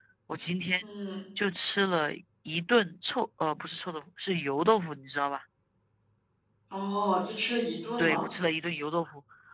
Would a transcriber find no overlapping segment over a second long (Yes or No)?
Yes